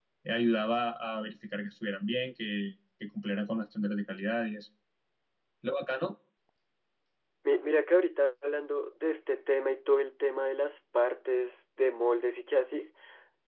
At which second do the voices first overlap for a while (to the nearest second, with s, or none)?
none